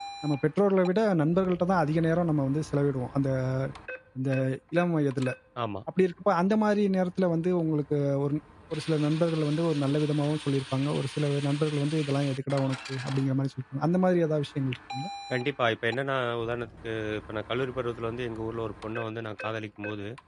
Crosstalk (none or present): none